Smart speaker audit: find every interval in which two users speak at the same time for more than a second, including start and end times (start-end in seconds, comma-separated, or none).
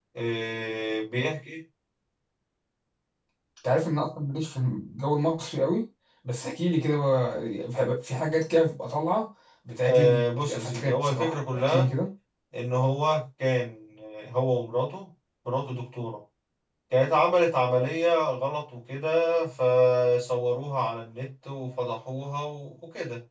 9.8-11.9